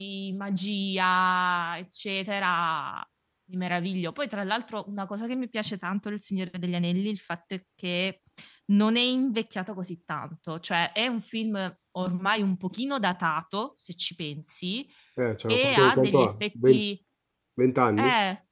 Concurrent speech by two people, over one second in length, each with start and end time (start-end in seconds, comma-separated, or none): 15.5-16.8